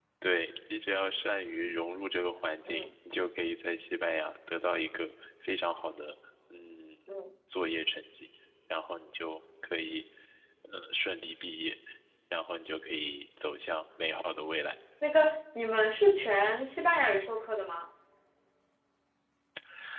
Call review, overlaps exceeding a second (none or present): none